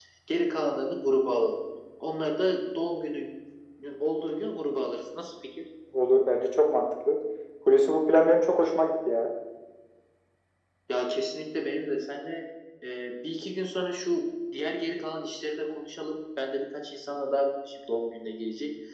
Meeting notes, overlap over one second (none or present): none